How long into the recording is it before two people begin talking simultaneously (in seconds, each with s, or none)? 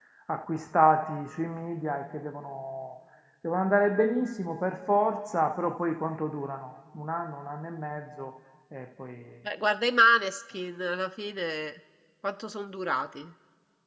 none